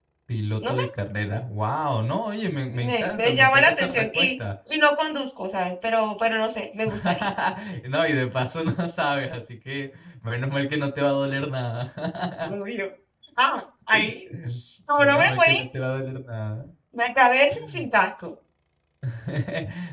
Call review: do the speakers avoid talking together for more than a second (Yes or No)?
No